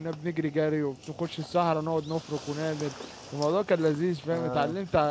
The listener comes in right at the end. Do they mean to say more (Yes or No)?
No